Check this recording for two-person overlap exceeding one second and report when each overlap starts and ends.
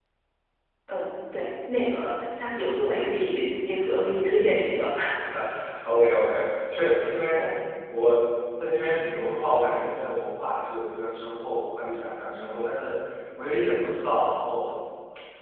none

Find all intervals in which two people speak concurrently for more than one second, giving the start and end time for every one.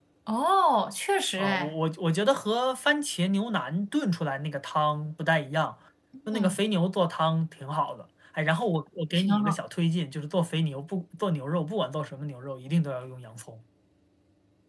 none

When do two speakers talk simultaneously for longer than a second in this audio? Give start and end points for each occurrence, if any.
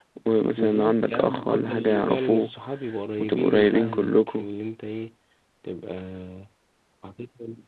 0.6-2.5, 3.2-4.4

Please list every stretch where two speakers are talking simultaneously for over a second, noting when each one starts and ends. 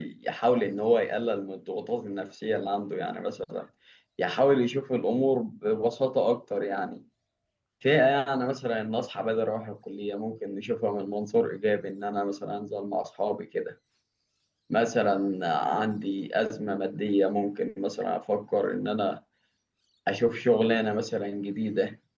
none

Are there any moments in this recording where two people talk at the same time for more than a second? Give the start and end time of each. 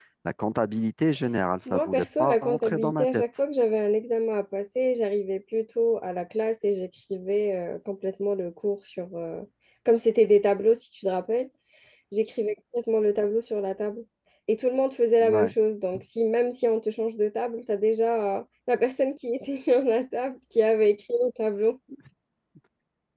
1.7-3.2

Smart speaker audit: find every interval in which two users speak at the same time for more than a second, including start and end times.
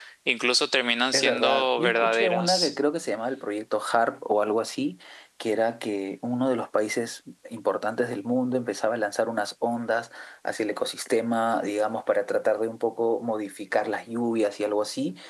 1.1-2.7

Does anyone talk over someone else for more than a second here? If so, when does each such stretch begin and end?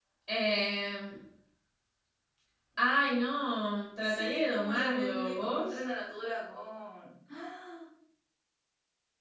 4.0-5.8

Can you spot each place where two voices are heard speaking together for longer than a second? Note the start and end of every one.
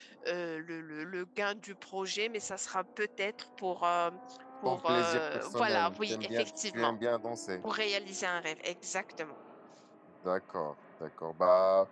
4.6-6.9

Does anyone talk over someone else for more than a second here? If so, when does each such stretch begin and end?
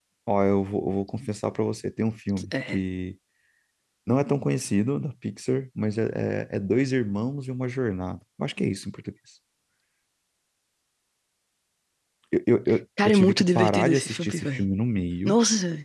13.1-14.6

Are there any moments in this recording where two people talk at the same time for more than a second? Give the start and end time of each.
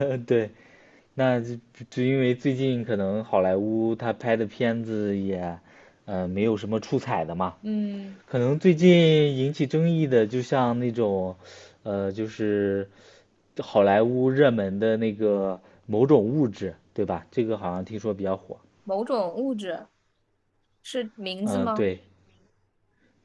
none

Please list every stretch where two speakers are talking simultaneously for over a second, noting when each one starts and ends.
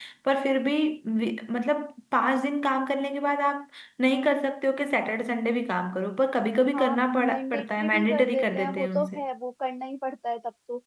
6.7-9.2

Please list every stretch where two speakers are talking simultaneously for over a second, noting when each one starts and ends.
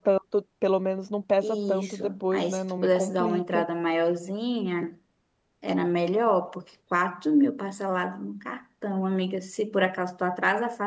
1.4-3.6

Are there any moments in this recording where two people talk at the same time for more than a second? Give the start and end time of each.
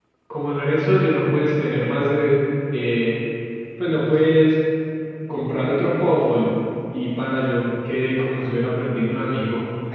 none

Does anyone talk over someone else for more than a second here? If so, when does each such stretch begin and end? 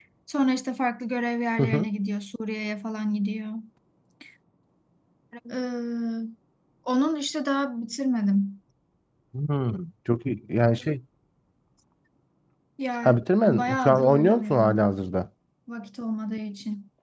13.0-14.9

